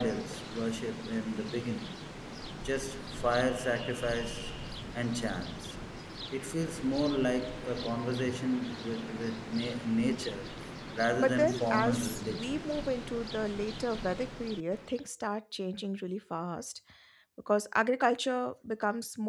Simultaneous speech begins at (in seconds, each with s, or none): 11.1 s